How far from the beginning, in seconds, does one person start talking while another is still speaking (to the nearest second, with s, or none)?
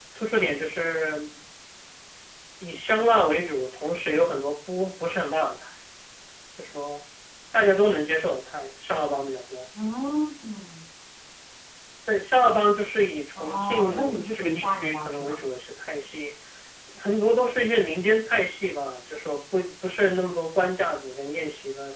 13 s